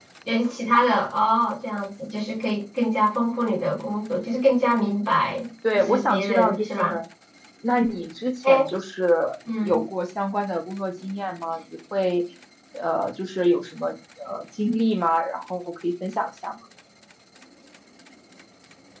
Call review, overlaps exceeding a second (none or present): present